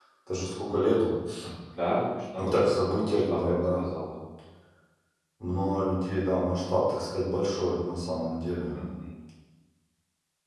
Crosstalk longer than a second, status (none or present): present